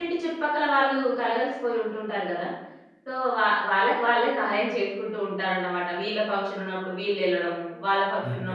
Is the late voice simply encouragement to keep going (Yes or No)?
Yes